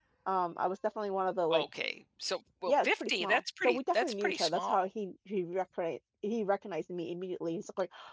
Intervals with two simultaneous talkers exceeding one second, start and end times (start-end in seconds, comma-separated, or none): 2.7-4.9